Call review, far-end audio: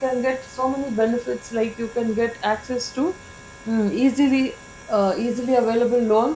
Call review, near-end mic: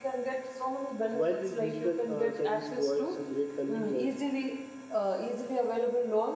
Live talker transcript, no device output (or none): While this digital uh, service provides a great convenience,